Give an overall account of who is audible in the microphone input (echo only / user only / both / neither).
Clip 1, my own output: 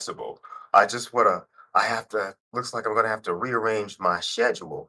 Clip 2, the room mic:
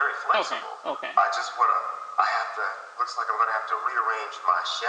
both